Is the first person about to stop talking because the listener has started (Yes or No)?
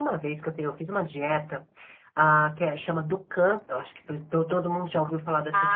Yes